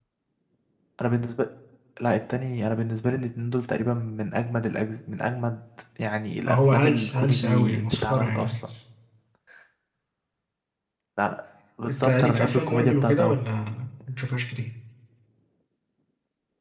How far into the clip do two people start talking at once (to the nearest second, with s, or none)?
6 s